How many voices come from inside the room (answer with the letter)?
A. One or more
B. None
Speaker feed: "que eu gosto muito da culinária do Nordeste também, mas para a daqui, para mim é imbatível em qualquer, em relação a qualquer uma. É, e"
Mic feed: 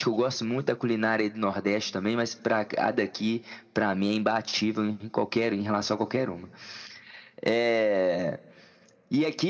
B